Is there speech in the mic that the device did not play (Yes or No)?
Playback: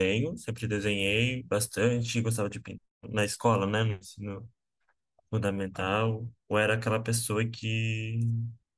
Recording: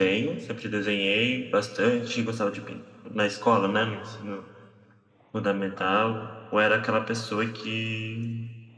No